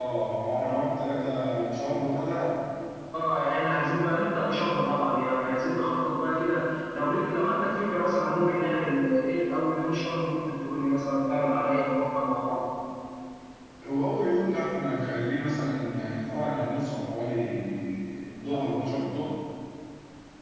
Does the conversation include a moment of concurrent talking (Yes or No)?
No